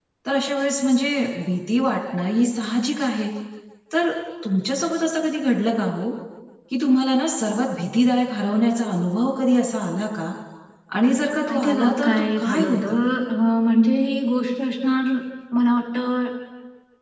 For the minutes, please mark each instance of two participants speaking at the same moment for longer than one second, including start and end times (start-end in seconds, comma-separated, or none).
11.5-12.8